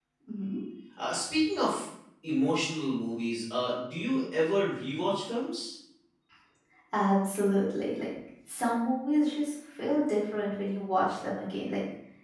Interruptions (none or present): none